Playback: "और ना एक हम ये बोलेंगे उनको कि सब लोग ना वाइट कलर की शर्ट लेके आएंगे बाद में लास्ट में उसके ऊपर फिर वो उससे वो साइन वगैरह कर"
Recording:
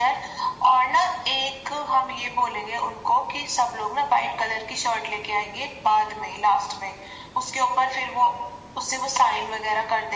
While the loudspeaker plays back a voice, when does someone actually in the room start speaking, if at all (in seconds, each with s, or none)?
none